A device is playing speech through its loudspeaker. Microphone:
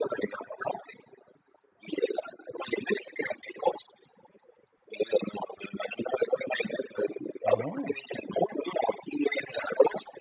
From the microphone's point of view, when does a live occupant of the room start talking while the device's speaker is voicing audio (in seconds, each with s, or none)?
7.4 s